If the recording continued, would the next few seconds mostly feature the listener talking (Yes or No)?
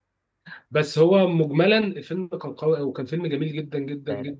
Yes